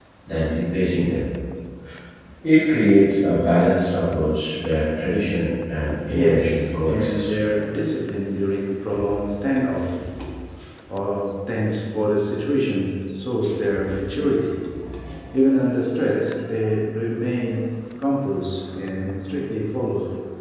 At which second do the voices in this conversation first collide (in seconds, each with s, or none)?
5.8 s